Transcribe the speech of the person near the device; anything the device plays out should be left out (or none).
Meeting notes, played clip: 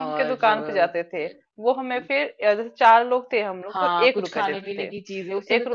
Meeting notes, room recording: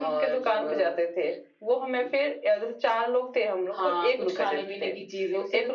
none